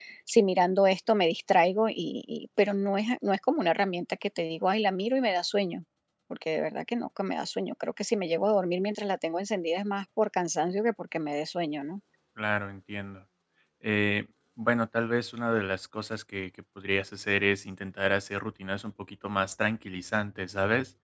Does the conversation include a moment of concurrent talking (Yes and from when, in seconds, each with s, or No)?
No